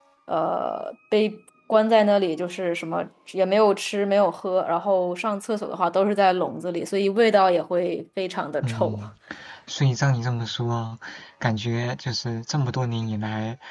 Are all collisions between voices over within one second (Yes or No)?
Yes